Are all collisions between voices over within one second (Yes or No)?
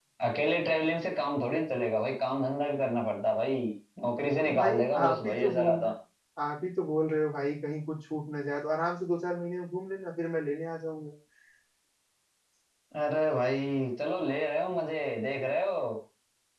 No